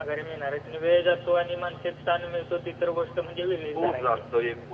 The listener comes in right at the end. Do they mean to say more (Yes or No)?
Yes